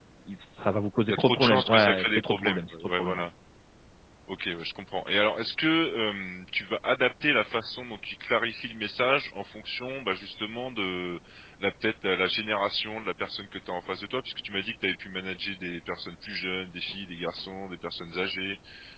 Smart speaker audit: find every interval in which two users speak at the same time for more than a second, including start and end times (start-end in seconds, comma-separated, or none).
1.1-3.3